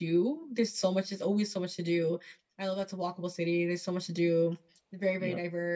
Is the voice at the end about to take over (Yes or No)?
No